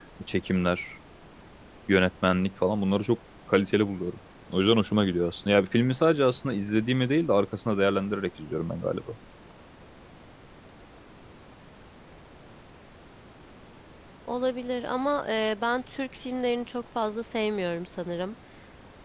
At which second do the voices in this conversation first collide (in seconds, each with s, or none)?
none